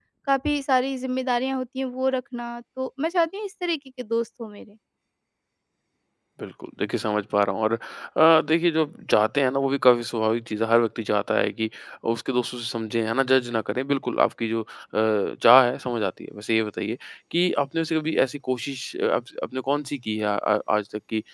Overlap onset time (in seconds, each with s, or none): none